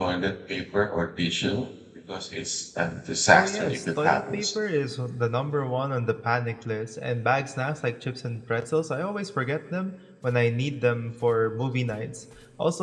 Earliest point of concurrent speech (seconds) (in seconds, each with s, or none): 3.3 s